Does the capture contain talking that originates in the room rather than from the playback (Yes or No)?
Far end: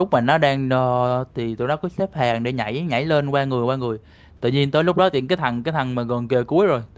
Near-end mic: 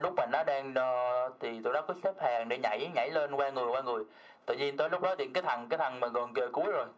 No